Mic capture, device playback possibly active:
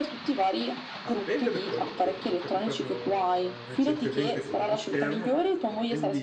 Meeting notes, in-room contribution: present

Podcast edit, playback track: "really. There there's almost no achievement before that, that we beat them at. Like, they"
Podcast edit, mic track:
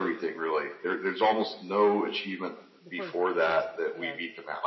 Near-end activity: present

